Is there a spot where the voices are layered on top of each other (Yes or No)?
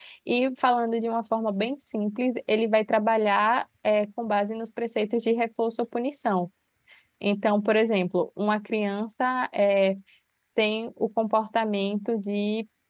No